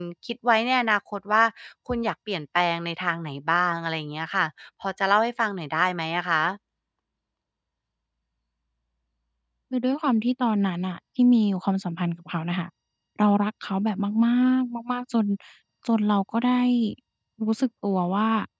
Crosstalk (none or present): none